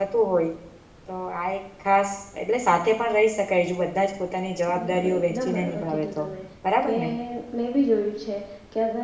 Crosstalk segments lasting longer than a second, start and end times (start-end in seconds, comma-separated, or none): 4.8-6.2